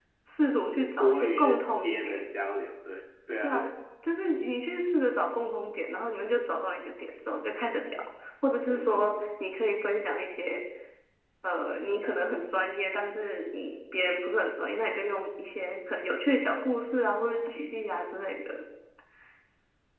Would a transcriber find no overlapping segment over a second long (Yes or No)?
No